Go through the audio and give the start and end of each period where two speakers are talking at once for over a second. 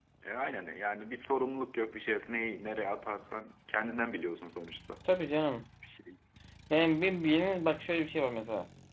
none

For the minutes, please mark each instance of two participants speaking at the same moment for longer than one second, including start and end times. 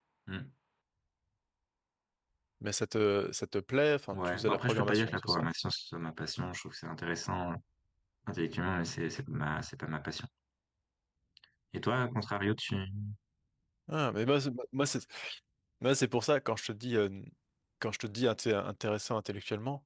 4.1-5.5

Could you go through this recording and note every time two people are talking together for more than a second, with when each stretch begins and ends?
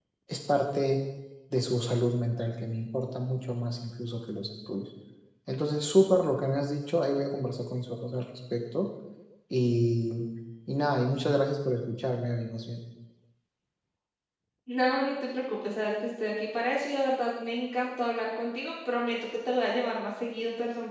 none

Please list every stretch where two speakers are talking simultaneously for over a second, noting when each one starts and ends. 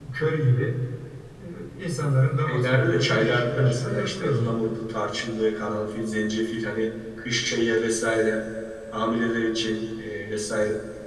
2.5-4.5

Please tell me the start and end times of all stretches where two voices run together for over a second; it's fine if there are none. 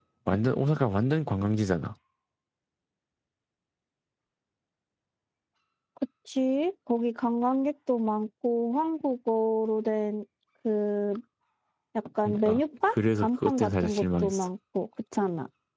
12.2-14.5

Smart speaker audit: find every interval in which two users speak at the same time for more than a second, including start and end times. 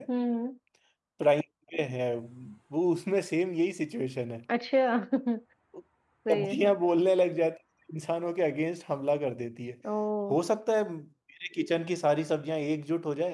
none

